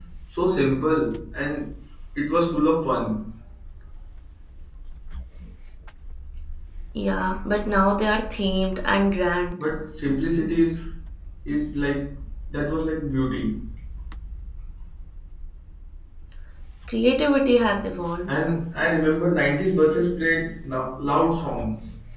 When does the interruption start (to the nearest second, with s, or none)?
none